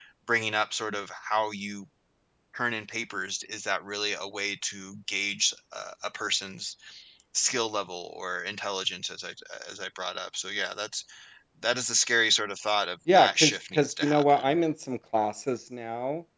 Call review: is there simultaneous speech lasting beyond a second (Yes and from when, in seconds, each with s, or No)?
Yes, from 13.1 s